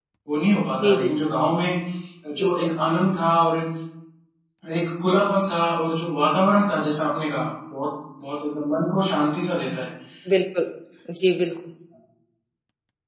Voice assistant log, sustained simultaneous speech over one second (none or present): none